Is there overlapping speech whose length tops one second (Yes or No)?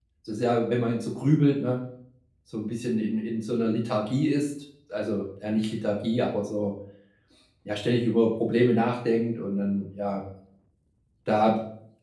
No